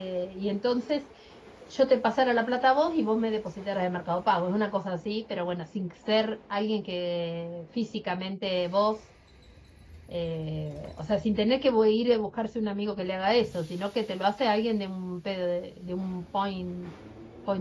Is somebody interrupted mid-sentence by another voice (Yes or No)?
No